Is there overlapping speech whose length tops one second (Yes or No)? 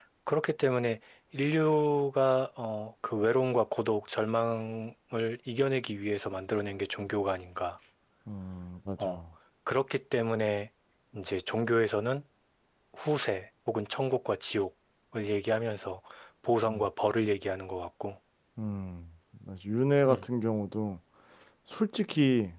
No